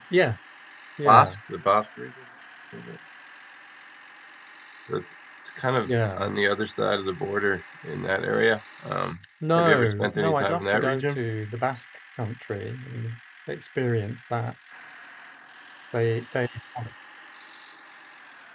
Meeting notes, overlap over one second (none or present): present